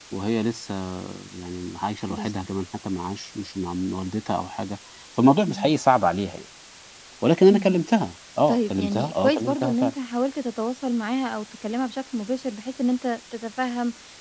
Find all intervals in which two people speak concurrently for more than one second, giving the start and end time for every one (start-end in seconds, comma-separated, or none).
8.5-9.9